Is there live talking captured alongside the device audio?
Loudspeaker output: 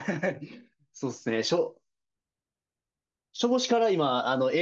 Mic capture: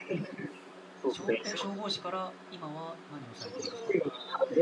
Yes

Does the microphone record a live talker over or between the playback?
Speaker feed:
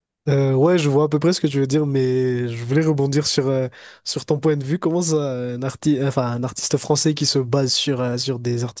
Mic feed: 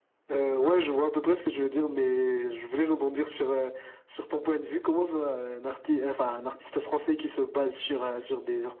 No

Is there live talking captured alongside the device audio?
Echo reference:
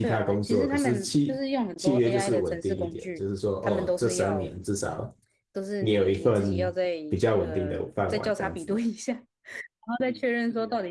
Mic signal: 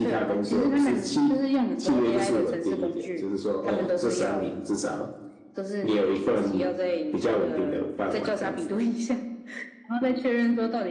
No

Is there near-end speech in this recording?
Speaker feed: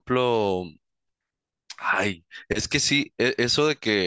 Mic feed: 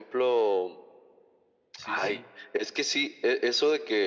Yes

